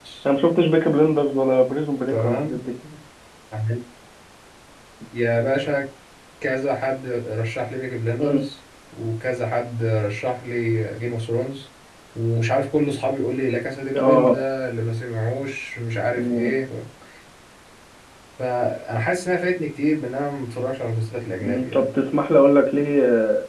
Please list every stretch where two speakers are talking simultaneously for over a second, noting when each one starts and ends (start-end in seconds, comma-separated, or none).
none